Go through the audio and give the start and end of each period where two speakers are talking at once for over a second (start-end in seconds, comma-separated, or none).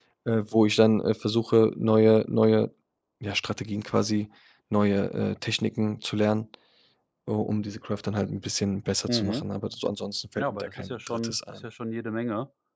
10.4-11.6